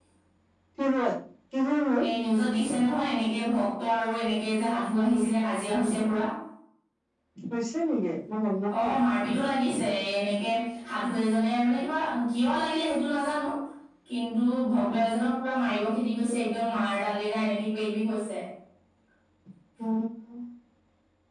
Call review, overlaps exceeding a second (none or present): none